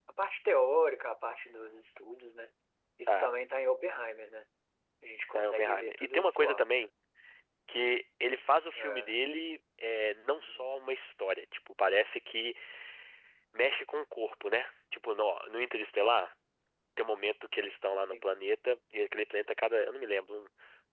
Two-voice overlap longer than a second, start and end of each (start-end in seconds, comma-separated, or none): 5.3-6.7